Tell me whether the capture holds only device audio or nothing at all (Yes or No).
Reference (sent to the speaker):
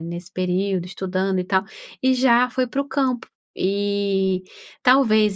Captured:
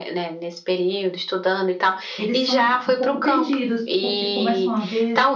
No